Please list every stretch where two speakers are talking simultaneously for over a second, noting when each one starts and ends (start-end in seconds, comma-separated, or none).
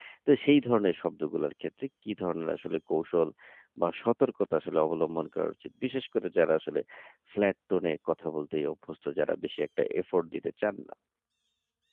none